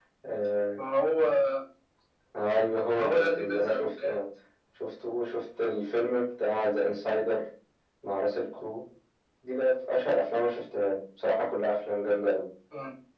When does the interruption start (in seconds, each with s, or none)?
2.9 s